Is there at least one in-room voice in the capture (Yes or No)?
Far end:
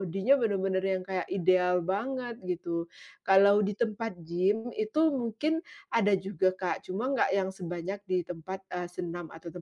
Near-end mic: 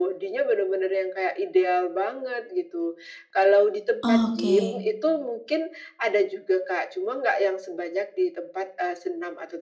Yes